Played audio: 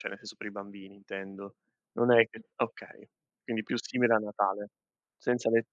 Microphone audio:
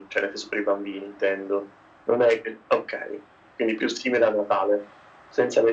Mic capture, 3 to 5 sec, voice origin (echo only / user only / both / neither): echo only